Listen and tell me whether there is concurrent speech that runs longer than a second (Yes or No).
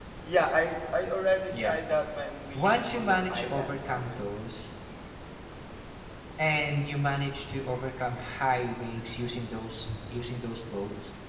Yes